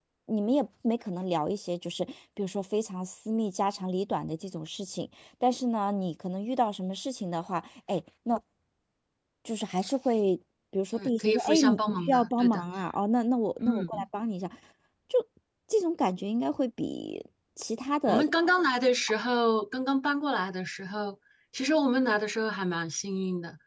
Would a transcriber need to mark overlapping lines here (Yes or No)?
Yes